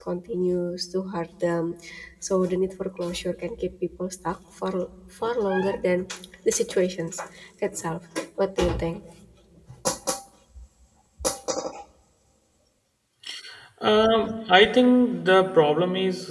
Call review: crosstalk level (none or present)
none